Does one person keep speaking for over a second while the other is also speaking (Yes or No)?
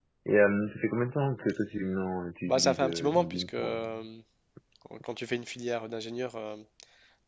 Yes